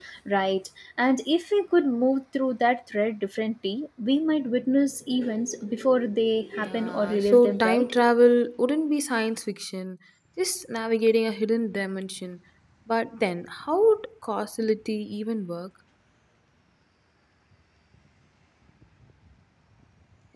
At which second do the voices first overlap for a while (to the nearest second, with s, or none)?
7 s